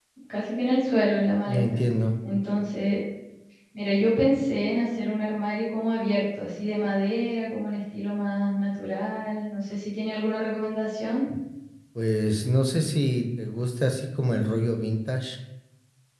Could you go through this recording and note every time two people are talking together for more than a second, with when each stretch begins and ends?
none

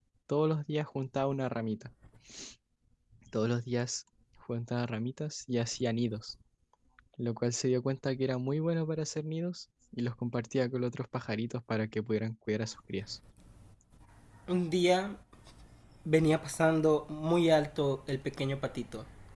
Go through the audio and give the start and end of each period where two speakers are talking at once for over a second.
none

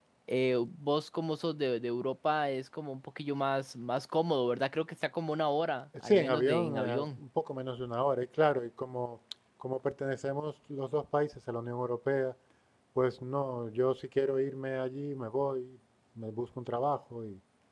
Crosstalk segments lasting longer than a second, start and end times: 6.0-7.2

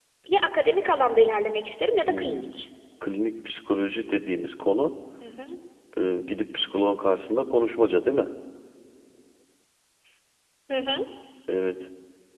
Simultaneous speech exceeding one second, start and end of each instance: none

